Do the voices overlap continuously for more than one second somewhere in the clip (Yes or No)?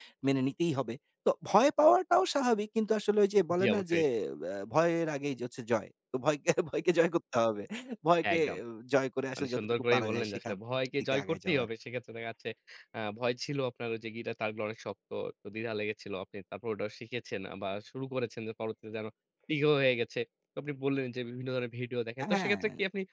Yes